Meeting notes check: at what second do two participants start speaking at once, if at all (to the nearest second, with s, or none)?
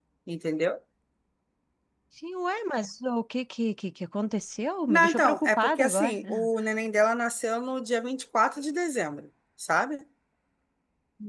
5 s